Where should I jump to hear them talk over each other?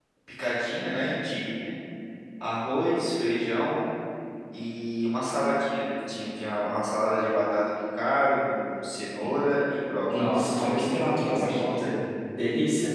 10.1 s

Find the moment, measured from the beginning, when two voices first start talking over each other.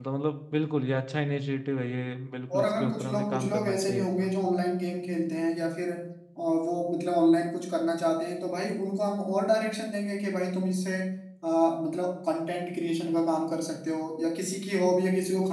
2.5 s

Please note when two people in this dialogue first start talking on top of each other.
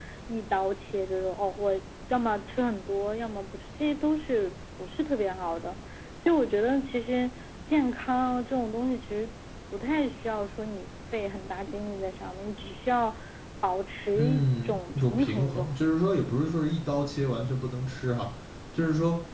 14.2 s

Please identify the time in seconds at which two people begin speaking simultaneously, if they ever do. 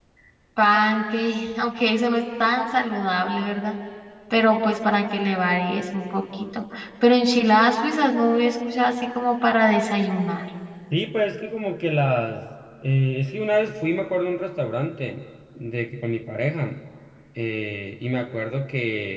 none

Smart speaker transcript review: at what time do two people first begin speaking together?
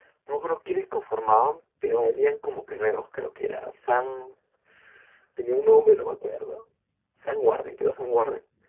none

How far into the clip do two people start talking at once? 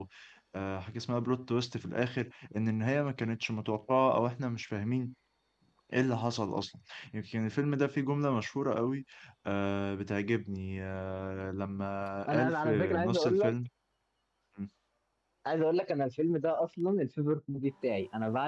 12.3 s

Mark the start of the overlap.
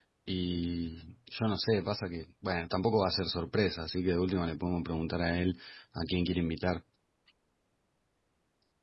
none

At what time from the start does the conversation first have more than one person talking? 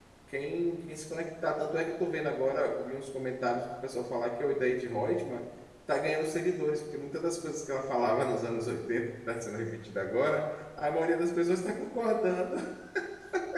none

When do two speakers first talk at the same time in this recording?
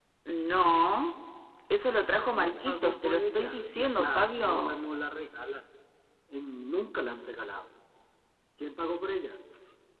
2.3 s

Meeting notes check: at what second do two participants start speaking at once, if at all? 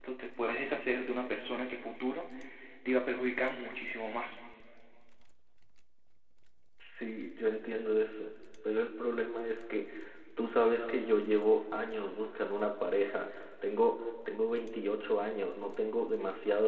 none

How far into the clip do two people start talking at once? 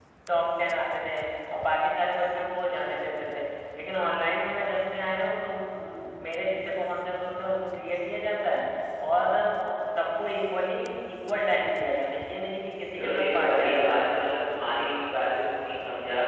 12.9 s

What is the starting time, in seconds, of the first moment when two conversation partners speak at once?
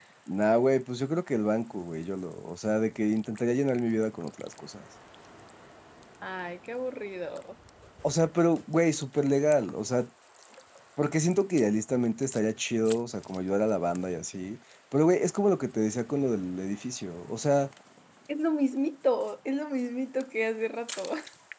none

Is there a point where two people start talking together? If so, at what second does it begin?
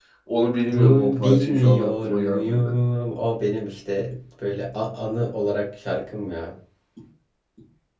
0.7 s

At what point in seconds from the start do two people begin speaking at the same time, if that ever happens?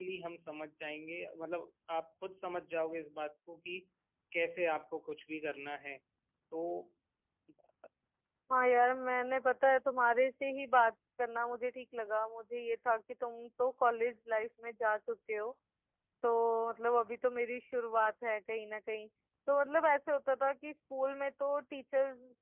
none

